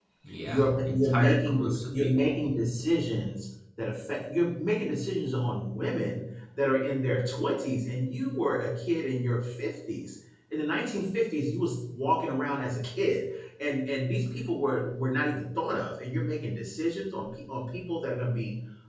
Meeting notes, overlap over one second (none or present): present